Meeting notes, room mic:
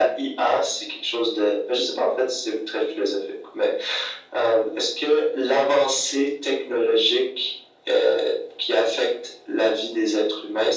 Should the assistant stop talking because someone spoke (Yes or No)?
No